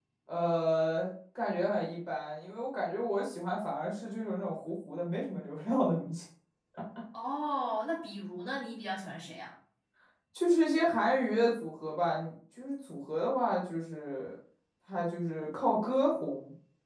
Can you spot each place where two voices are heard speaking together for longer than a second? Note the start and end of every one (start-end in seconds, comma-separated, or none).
none